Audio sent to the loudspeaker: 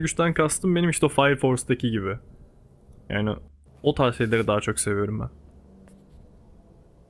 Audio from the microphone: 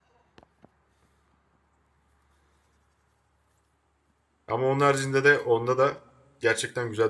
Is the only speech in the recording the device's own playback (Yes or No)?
No